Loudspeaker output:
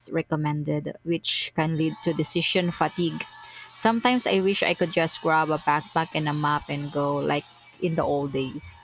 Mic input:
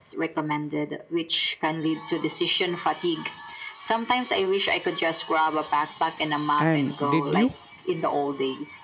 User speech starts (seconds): 6.6 s

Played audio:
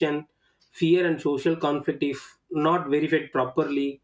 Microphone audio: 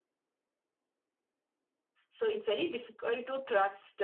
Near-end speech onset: 2.1 s

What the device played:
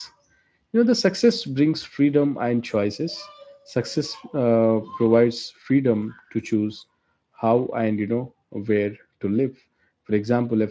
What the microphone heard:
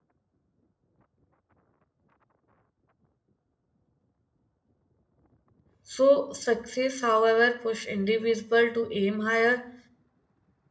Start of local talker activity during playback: 5.8 s

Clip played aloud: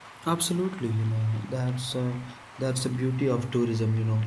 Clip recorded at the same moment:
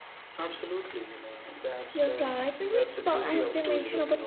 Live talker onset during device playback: 1.9 s

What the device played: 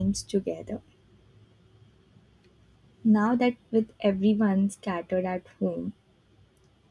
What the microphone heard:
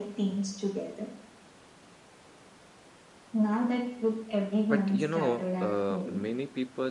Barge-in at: 4.7 s

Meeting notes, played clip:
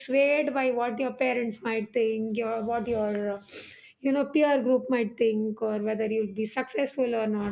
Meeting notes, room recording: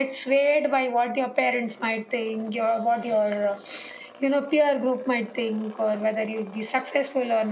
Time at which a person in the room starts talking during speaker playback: none

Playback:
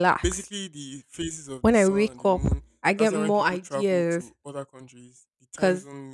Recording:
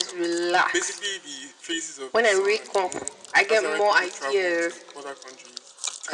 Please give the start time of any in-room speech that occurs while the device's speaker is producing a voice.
none

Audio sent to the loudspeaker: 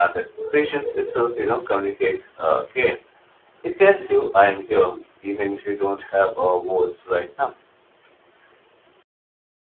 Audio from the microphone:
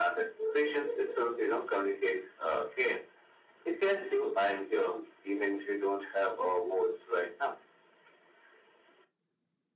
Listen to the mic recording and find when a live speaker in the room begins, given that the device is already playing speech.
none

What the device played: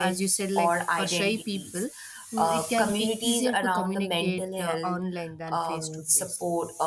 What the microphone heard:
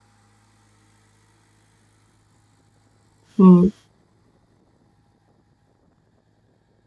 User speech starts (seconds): 3.4 s

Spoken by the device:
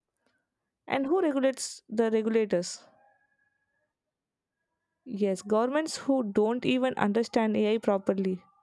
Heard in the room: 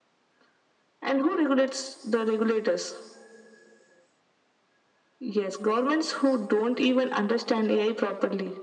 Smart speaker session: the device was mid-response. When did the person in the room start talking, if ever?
none

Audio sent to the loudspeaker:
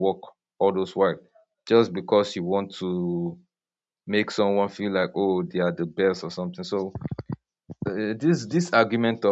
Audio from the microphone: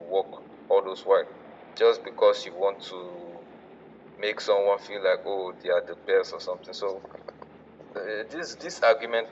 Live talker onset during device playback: none

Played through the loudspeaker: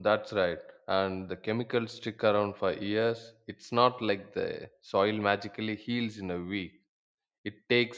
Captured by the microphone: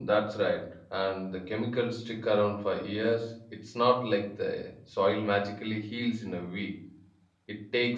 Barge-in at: none

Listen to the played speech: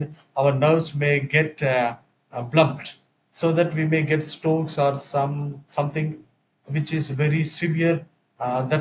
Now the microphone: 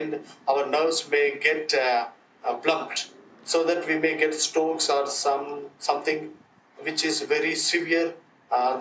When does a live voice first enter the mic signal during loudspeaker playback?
none

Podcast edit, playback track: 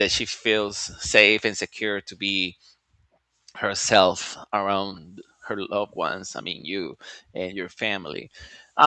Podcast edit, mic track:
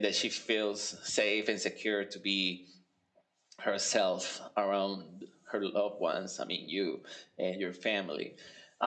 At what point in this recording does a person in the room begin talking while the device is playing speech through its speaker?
none

